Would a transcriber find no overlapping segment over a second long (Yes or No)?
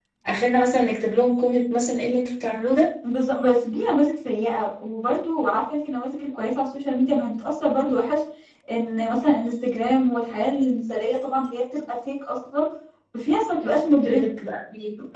Yes